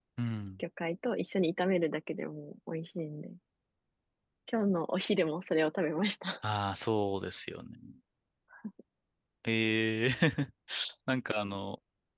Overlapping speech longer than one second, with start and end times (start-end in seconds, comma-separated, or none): none